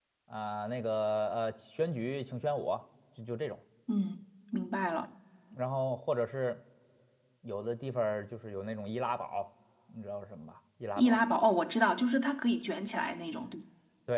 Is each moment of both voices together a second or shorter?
Yes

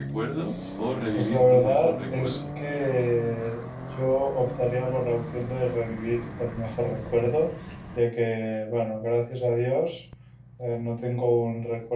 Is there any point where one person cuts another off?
Yes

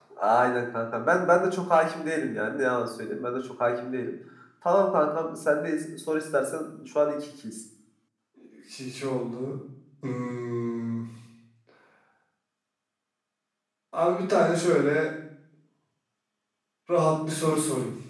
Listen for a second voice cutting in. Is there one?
No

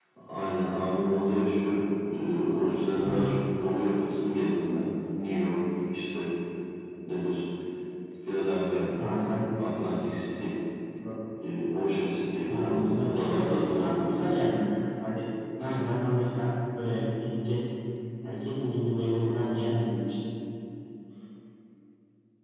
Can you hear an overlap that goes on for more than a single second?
Yes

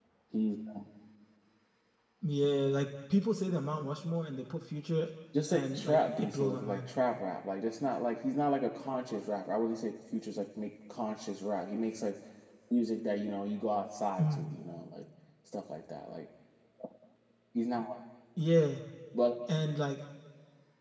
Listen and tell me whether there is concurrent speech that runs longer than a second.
Yes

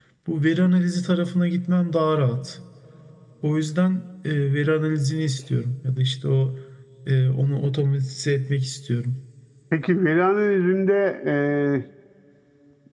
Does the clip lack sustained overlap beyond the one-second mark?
Yes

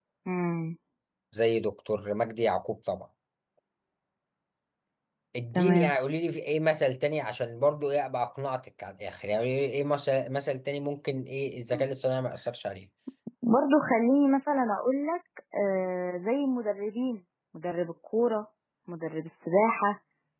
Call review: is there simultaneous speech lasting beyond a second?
No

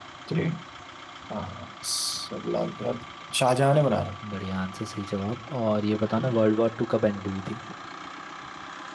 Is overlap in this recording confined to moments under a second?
Yes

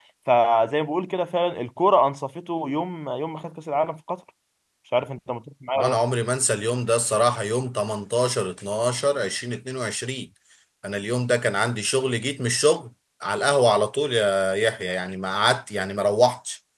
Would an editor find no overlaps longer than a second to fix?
Yes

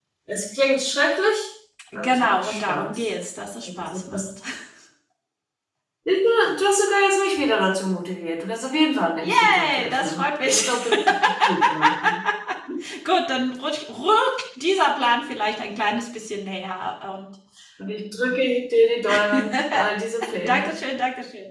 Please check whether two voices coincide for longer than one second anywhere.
Yes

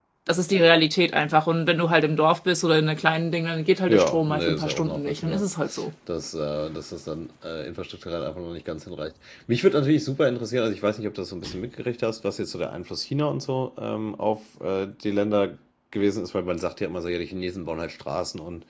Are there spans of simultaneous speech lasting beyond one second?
Yes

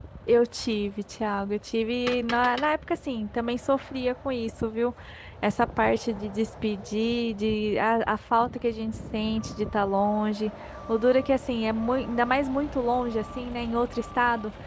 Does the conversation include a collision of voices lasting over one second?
No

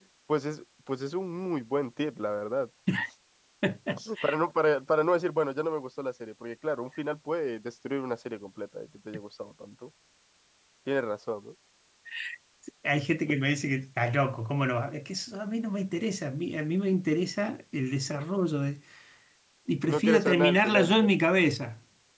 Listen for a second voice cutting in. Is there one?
Yes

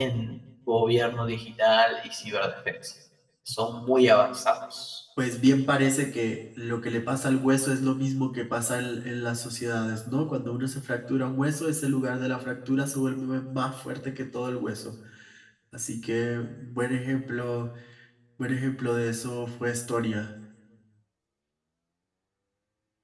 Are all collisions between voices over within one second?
Yes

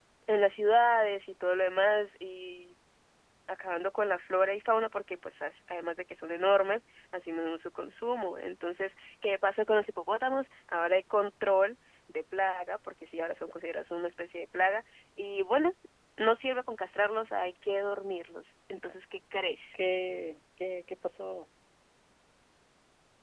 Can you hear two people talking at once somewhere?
No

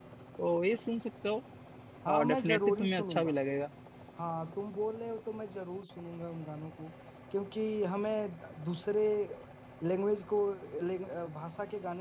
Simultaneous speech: Yes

